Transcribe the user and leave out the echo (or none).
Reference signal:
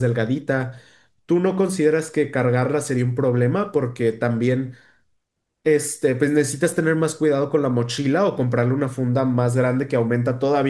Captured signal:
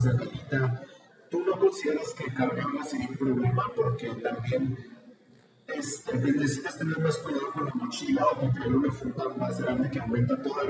none